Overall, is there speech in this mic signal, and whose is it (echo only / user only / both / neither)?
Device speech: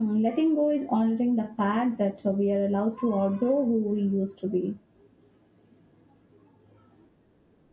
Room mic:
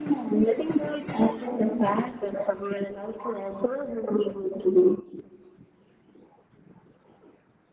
echo only